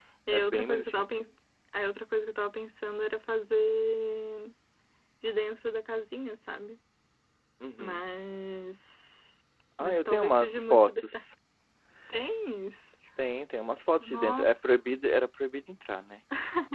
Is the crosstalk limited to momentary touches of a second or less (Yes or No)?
No